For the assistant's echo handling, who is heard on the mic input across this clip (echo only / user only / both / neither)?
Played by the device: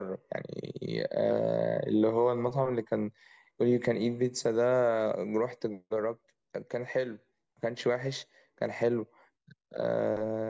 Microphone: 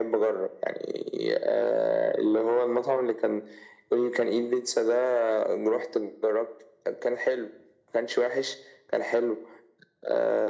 echo only